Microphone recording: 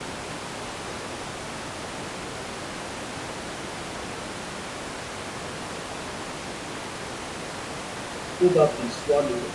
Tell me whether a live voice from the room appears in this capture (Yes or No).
Yes